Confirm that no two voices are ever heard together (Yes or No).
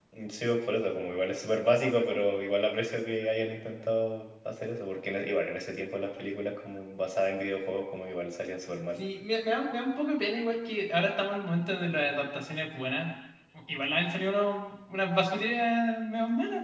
Yes